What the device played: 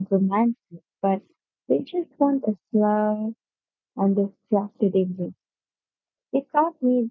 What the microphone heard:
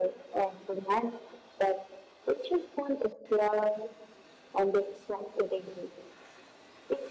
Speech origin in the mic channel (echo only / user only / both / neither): echo only